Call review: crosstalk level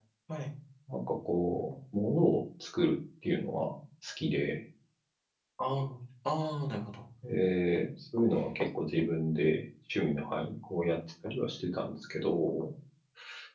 none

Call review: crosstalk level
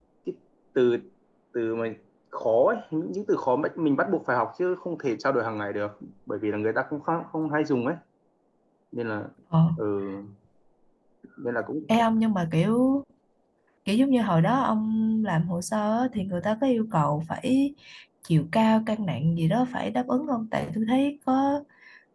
none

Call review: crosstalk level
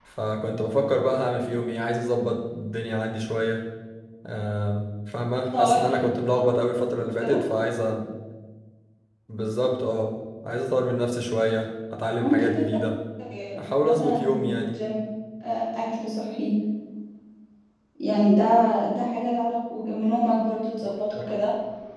present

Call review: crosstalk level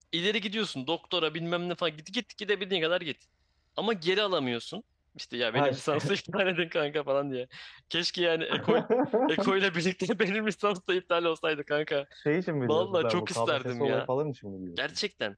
present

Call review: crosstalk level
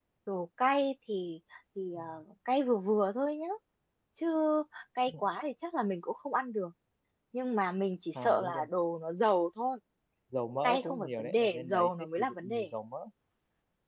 present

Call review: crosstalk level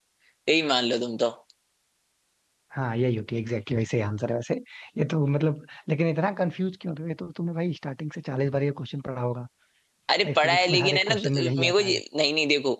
present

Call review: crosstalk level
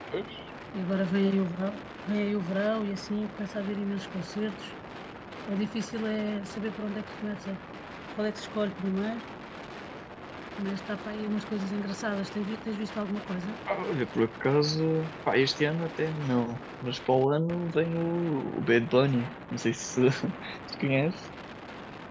none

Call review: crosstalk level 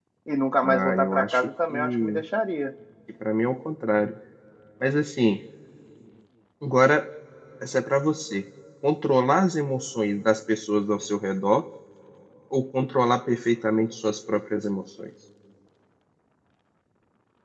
present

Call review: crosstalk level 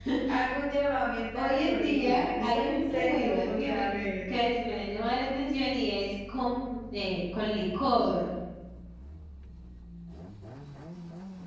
present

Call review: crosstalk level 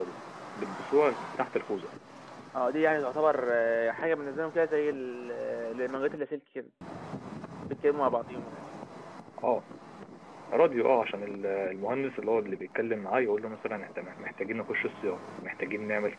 none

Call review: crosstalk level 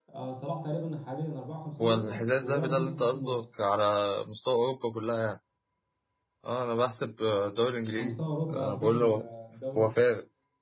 present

